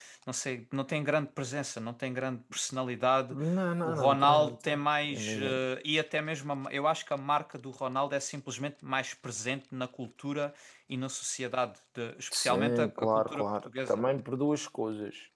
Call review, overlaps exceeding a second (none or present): present